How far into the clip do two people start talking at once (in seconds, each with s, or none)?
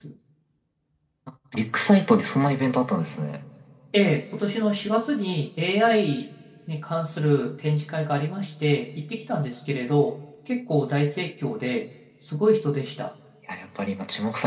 none